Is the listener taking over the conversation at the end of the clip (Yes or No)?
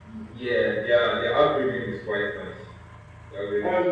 Yes